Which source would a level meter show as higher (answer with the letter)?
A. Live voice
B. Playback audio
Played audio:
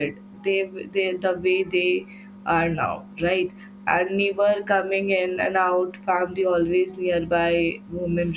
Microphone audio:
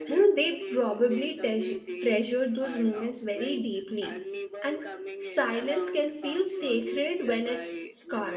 A